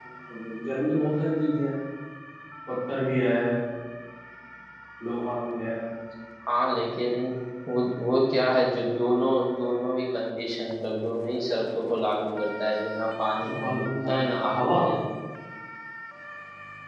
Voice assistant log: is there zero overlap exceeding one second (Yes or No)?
No